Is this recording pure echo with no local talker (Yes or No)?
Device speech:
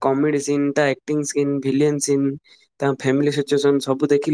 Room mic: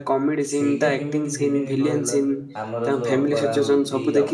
No